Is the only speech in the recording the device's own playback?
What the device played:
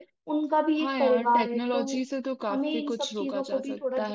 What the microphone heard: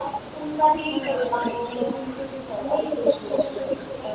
Yes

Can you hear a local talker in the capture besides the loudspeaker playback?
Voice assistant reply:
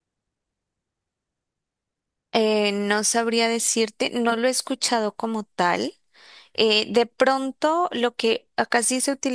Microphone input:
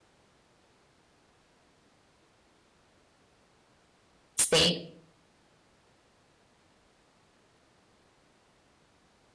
Yes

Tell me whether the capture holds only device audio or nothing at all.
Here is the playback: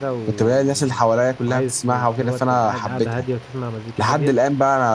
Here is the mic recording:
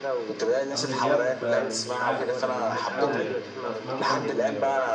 No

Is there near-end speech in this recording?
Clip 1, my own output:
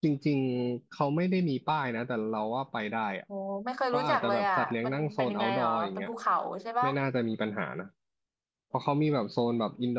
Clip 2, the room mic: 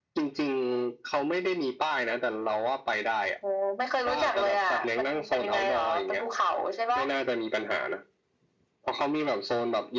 No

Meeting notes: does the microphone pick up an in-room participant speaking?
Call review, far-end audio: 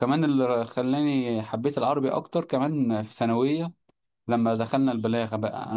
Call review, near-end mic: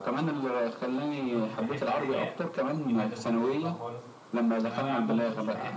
Yes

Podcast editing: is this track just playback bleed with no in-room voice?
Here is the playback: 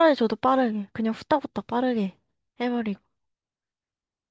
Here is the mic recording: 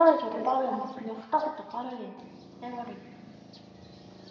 Yes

